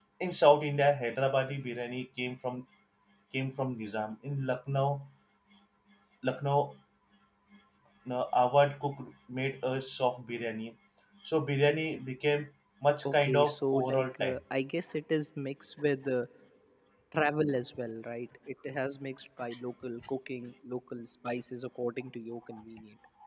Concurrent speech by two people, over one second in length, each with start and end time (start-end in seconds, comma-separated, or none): 13.1-14.4